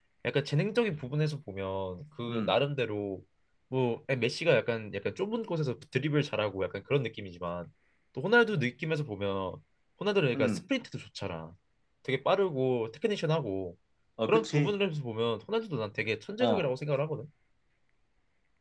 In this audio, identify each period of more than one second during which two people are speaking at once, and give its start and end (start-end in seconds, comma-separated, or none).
none